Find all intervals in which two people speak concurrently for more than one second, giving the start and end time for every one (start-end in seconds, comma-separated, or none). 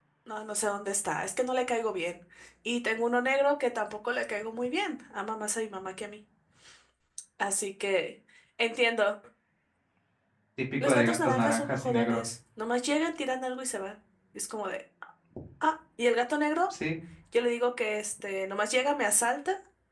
10.8-12.3